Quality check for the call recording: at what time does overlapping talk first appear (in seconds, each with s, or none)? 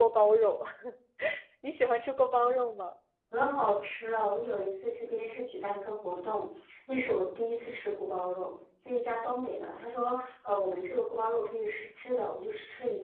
none